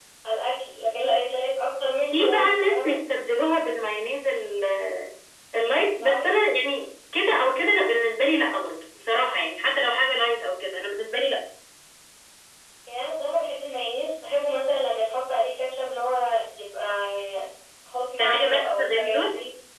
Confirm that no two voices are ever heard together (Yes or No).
No